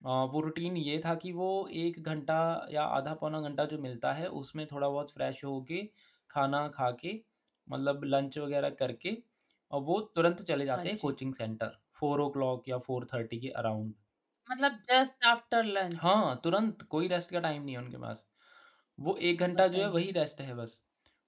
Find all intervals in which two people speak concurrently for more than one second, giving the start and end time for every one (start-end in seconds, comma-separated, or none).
none